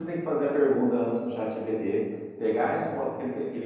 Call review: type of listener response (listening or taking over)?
listening